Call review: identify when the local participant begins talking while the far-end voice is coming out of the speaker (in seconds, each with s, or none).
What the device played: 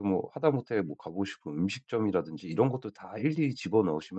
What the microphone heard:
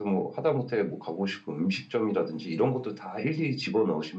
none